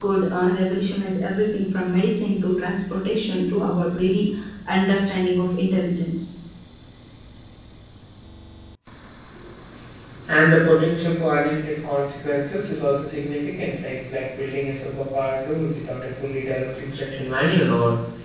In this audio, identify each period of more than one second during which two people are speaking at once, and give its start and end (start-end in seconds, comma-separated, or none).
none